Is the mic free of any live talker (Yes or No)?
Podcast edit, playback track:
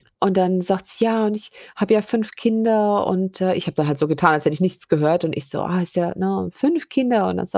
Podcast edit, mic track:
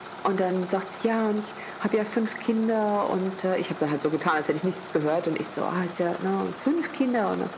Yes